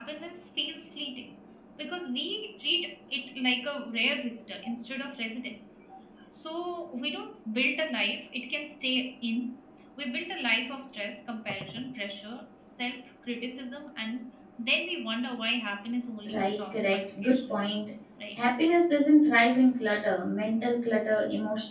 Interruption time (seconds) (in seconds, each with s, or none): 16.3 s